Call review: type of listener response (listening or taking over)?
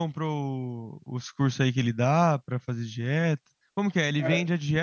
listening